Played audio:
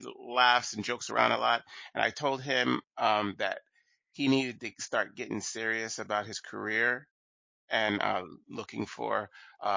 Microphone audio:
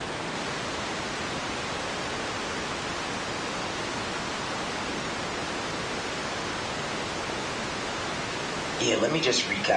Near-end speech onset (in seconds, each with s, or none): 8.8 s